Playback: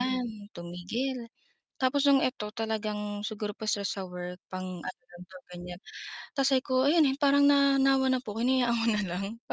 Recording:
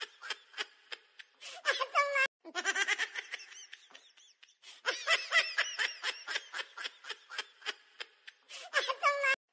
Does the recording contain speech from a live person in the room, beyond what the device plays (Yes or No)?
No